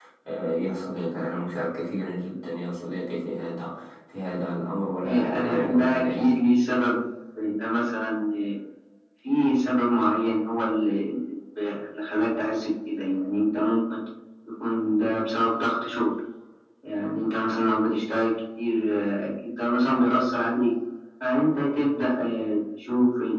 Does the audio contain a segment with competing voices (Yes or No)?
Yes